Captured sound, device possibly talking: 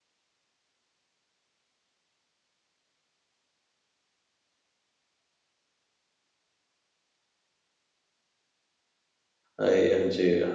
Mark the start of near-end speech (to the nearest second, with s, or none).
10 s